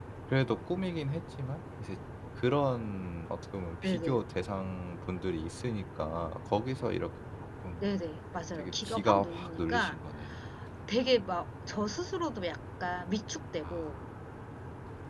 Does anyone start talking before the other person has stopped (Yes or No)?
Yes